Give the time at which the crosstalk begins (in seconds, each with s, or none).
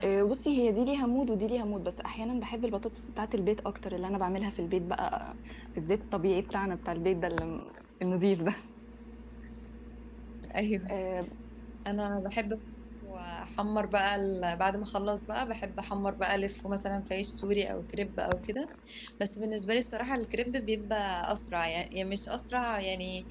none